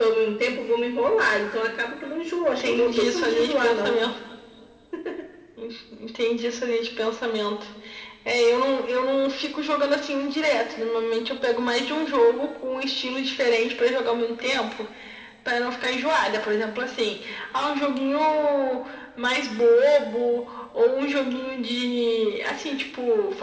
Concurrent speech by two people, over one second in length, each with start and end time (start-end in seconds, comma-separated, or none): 2.5-4.0